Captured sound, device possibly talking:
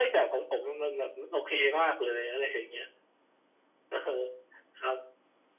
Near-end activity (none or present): none